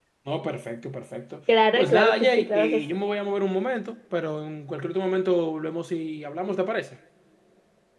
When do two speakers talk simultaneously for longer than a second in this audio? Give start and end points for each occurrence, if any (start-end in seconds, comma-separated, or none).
1.8-3.0